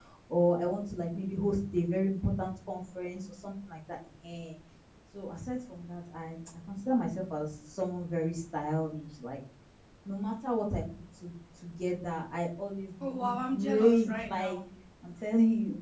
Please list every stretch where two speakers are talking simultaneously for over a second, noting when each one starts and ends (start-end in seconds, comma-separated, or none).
13.0-14.6